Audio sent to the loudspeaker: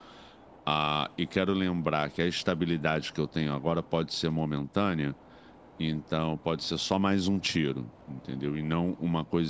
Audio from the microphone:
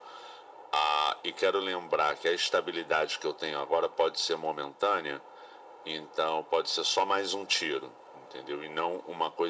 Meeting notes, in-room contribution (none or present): none